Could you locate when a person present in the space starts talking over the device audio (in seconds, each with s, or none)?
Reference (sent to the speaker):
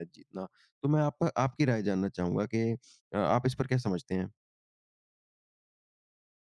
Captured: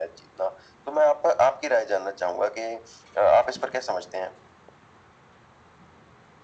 none